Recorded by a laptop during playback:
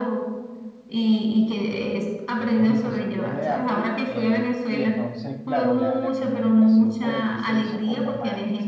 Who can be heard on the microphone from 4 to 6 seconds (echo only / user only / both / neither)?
both